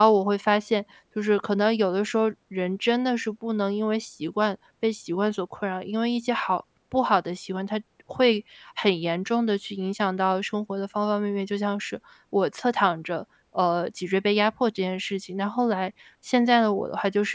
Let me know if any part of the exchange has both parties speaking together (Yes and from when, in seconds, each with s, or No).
No